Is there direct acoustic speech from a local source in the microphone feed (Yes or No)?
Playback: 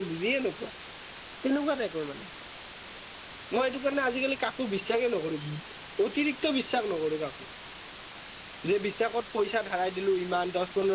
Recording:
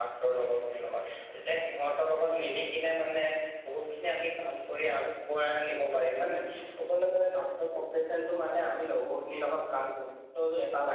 Yes